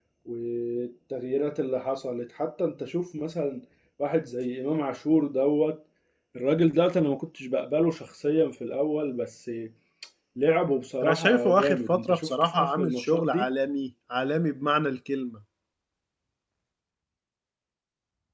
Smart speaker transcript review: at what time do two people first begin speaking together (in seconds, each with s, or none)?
11.0 s